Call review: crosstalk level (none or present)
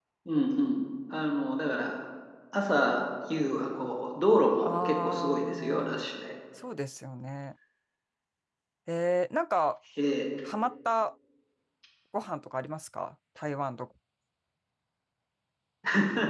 present